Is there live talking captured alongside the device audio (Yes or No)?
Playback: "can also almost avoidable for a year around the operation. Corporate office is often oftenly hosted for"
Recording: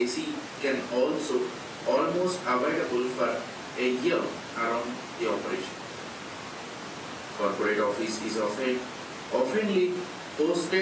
No